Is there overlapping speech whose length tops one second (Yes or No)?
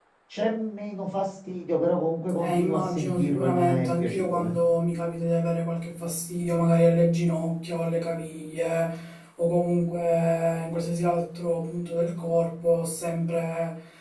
Yes